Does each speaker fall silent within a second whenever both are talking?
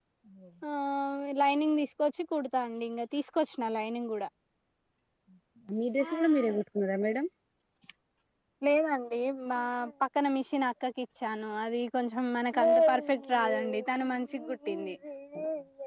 Yes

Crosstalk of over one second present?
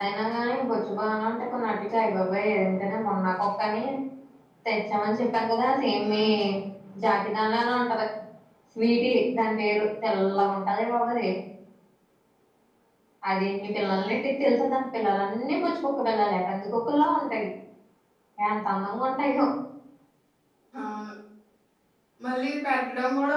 No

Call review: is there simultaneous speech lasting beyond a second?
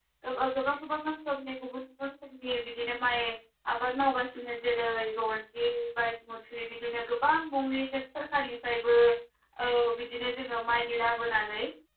No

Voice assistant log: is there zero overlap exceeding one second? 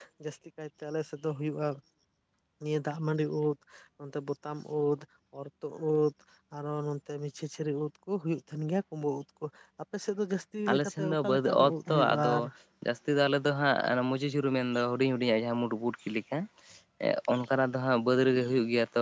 No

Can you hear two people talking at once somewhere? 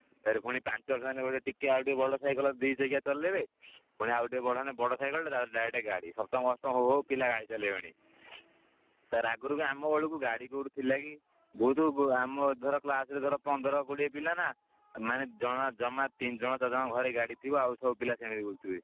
No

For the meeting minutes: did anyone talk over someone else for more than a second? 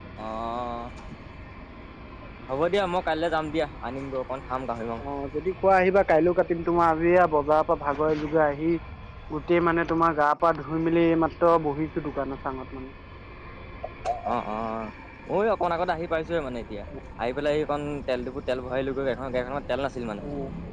No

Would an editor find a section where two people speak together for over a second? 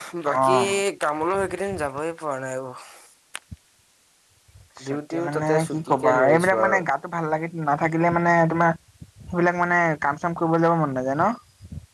Yes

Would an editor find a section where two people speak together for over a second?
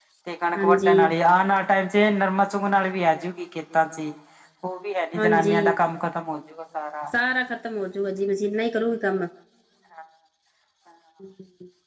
No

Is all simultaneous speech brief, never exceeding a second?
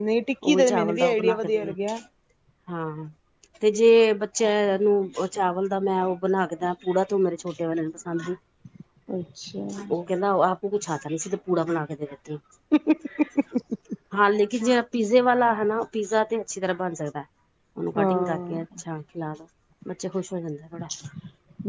No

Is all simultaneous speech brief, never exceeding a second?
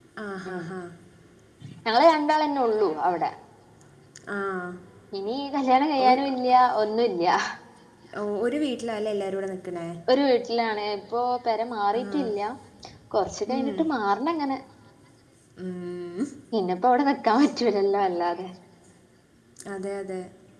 Yes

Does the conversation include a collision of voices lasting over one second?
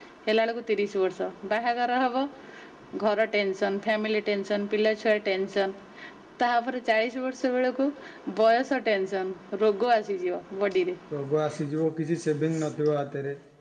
No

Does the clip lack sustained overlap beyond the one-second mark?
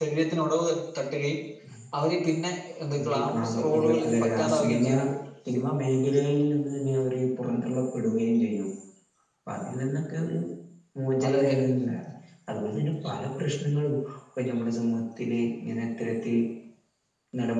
No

